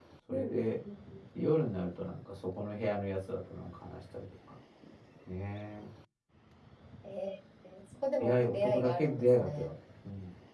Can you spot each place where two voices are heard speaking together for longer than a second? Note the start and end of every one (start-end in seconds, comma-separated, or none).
8.2-9.7